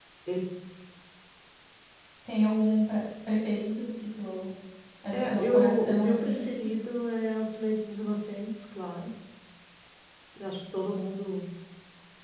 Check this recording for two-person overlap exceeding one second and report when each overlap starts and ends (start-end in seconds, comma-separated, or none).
5.1-6.4